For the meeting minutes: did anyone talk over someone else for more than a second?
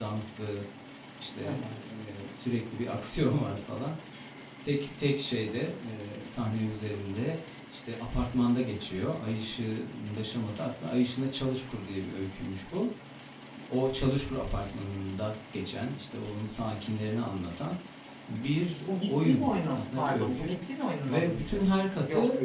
Yes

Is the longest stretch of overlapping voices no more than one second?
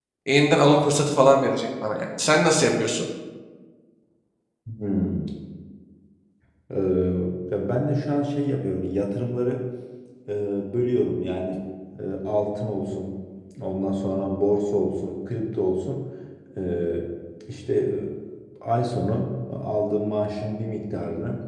Yes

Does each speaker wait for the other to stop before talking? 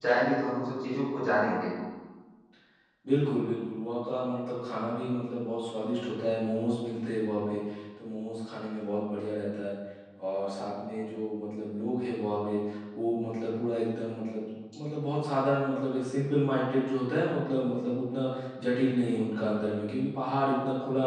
Yes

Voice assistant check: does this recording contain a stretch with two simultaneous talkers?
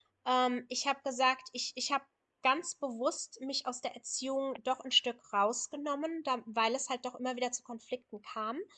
No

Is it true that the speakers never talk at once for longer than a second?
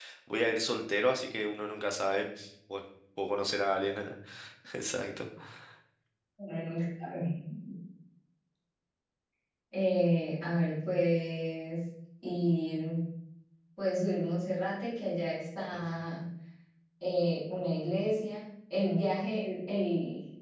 Yes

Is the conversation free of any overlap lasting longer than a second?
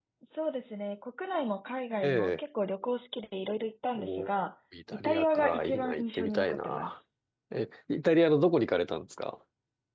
No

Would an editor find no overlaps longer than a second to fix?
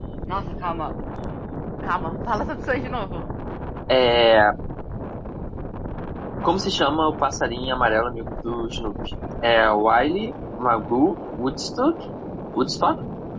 Yes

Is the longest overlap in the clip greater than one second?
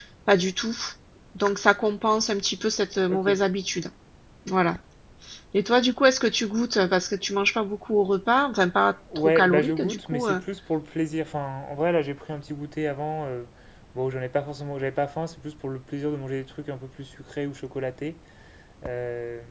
Yes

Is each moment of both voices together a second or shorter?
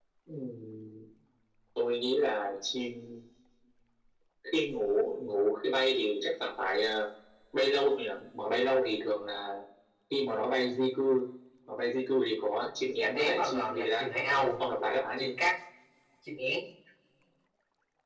No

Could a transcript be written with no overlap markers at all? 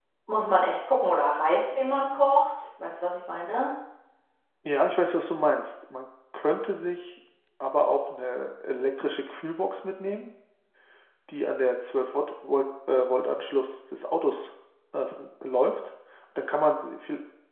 Yes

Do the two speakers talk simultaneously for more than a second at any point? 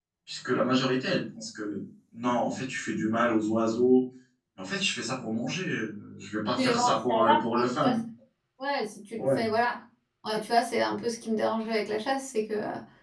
Yes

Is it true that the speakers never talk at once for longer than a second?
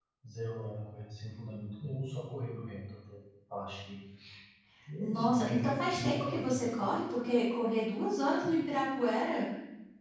No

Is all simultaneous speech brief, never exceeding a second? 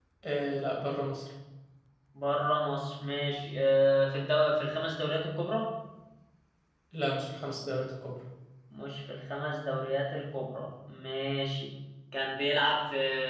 Yes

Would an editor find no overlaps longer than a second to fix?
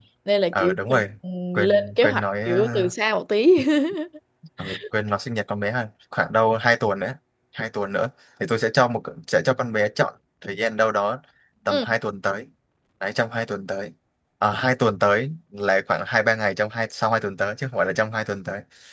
No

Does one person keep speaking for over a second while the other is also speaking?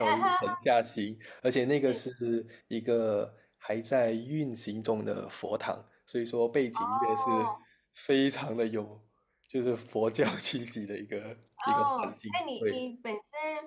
Yes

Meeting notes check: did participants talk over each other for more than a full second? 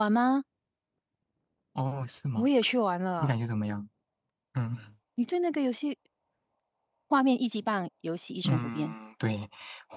No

